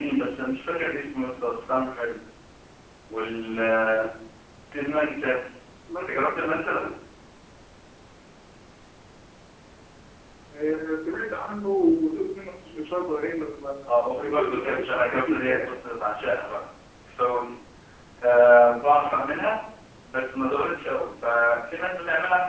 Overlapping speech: Yes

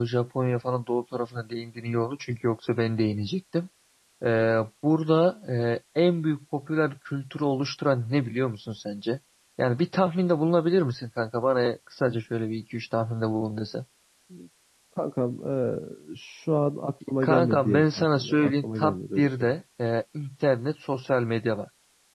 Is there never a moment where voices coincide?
No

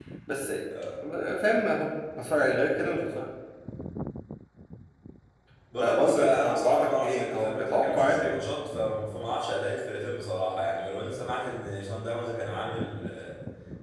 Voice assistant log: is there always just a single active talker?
No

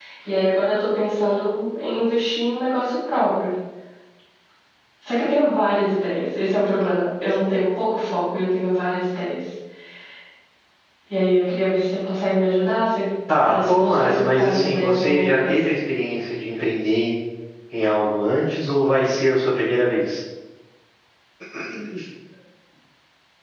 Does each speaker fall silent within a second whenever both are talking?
No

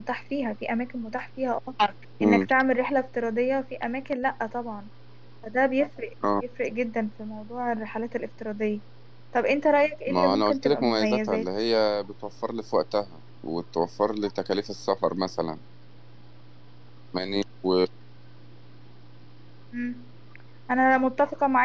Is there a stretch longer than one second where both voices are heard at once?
Yes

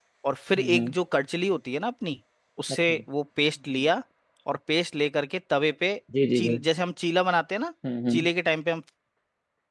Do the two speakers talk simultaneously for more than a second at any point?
No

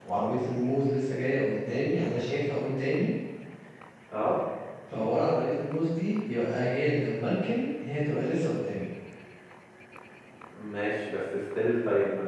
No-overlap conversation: Yes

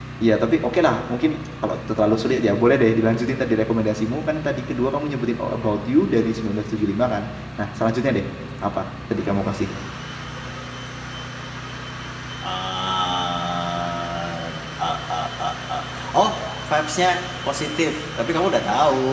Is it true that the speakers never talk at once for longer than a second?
Yes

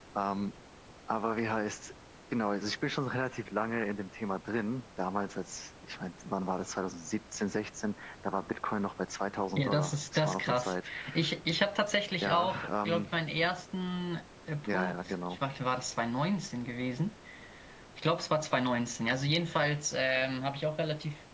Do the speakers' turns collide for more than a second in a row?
Yes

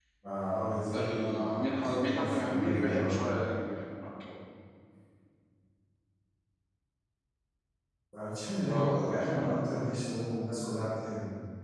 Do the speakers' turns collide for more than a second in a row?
Yes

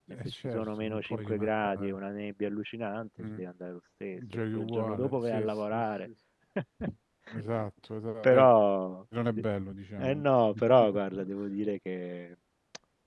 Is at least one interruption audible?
Yes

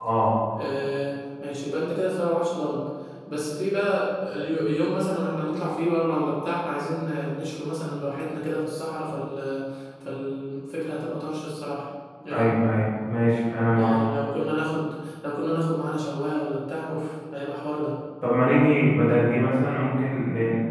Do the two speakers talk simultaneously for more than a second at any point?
No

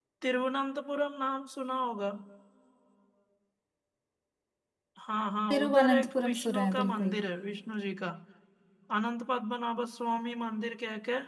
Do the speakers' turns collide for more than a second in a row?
Yes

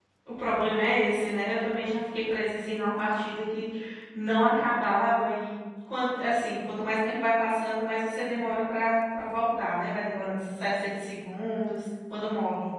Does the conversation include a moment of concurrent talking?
No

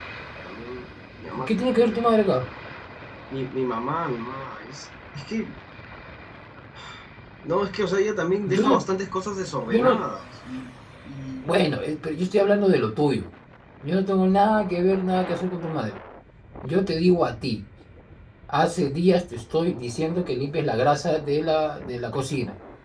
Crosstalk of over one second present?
No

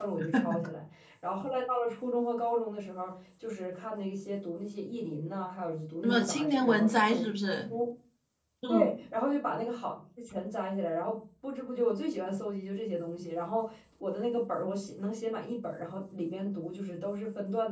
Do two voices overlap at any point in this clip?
Yes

